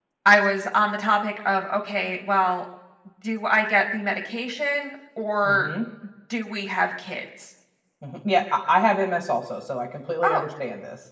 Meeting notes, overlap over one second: none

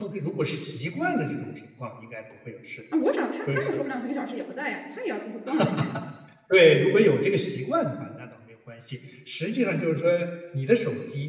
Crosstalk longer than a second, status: none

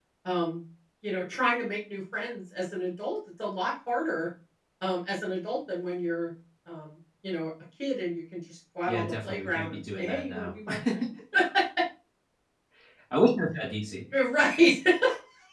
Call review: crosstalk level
present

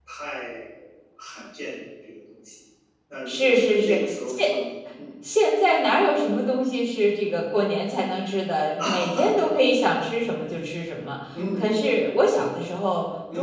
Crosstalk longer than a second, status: present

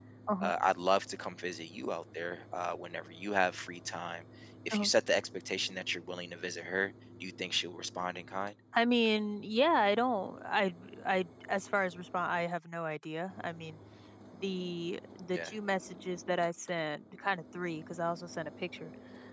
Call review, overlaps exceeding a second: none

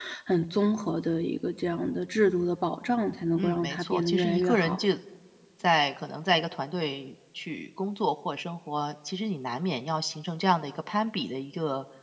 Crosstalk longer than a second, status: present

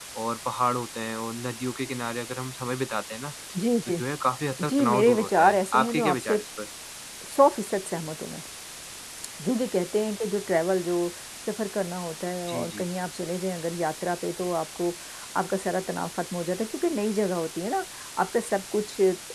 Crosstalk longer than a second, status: present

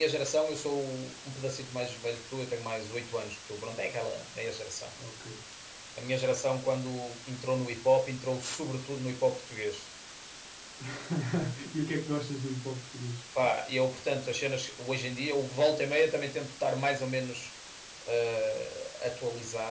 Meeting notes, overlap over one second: none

